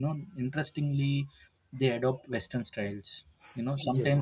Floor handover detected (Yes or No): No